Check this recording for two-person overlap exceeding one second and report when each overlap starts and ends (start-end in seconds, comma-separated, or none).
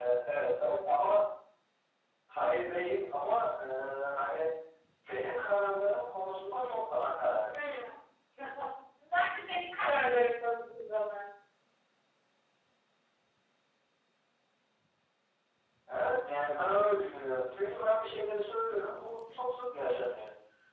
none